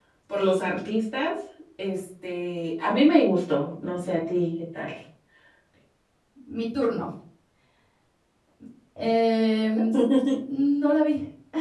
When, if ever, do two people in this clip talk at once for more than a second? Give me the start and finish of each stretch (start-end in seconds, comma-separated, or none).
none